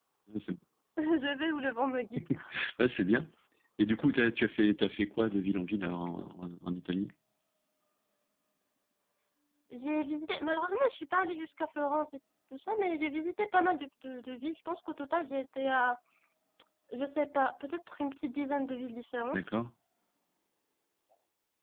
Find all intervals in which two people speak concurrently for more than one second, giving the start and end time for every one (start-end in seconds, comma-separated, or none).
none